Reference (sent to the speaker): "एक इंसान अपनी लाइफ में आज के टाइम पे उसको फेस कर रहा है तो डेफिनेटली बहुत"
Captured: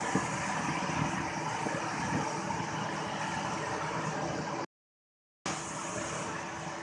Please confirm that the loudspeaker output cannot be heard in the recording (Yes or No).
Yes